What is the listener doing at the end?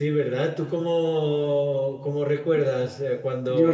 taking over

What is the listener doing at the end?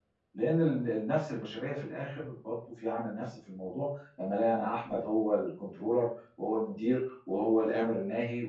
listening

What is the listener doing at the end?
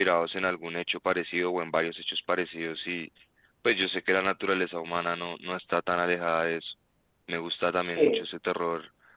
listening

